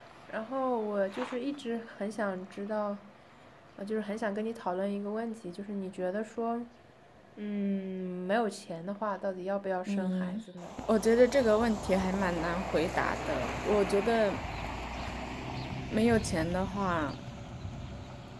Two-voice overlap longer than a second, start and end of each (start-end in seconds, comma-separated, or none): none